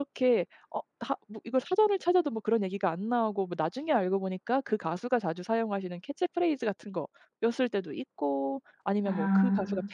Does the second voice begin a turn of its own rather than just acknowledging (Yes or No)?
No